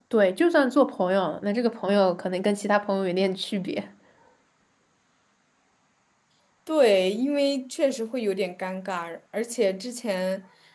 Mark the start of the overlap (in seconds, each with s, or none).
none